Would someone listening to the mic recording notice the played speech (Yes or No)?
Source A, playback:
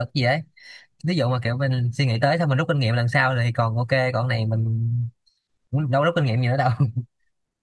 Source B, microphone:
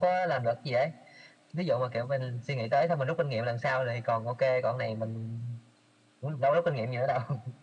Yes